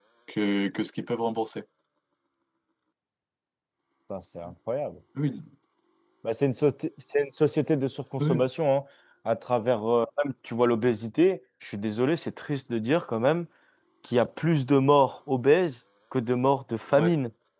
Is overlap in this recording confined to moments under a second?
Yes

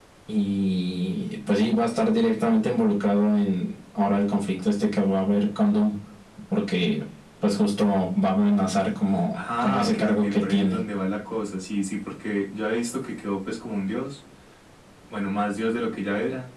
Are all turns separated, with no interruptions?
No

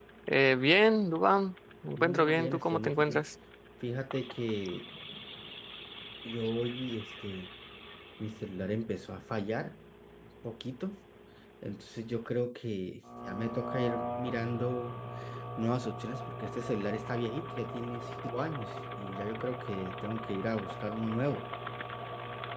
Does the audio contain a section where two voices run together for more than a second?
Yes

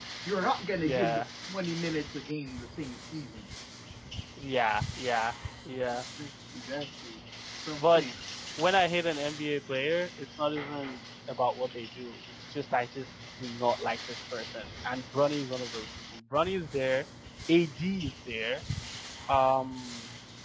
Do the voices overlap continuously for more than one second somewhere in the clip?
No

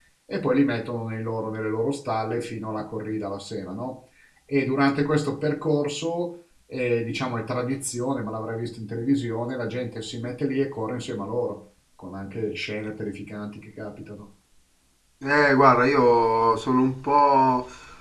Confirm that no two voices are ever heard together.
Yes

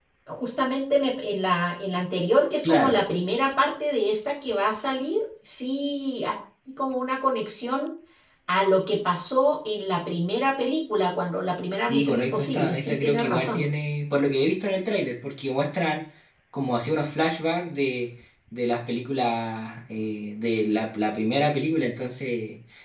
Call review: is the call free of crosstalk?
No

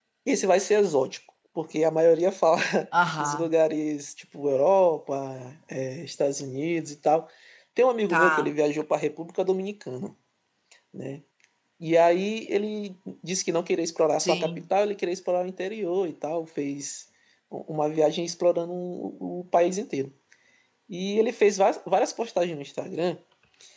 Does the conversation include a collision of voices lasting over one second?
No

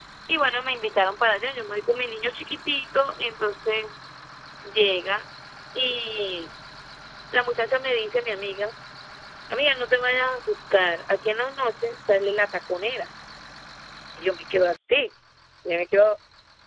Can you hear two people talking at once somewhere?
No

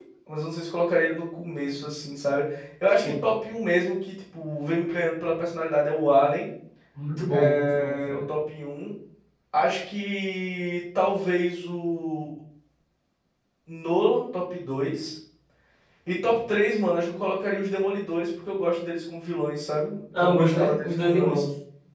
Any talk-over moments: Yes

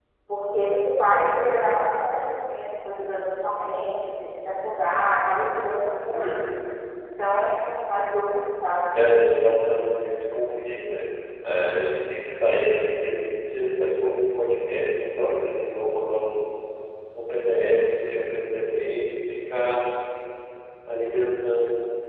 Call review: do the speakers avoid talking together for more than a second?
Yes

